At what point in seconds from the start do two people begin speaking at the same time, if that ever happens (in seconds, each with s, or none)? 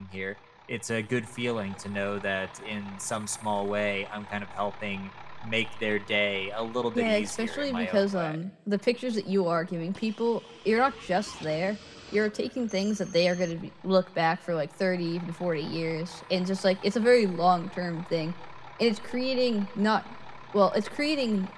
6.9 s